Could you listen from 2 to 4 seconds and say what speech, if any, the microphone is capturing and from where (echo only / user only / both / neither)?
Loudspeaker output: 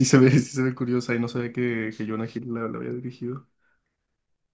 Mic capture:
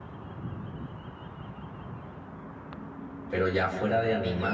user only